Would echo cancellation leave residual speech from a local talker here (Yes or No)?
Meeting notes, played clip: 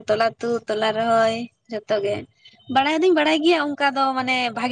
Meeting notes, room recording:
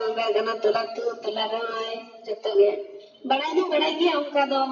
No